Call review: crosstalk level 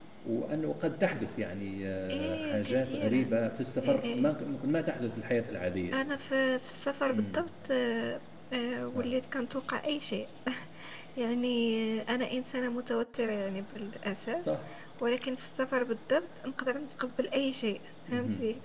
present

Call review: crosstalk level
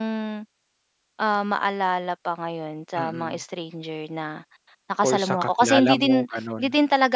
present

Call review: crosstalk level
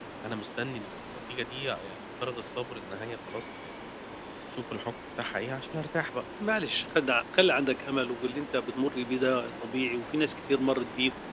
none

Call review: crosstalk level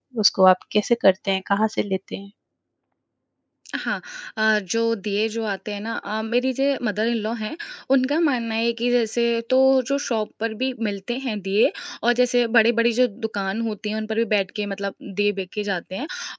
none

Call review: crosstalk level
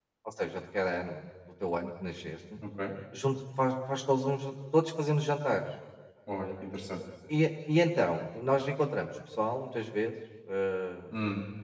none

